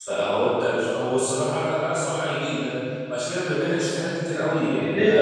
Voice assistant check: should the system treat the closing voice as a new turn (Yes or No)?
Yes